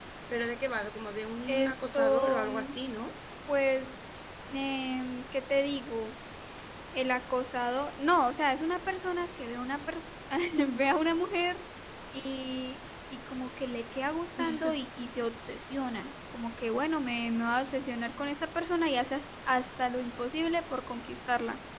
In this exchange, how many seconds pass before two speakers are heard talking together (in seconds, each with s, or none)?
1.5 s